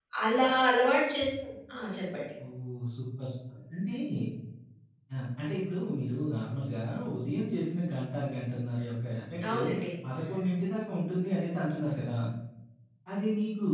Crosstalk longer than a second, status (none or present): none